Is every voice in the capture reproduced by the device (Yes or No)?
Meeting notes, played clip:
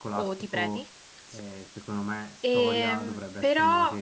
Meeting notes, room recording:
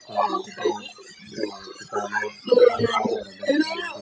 Yes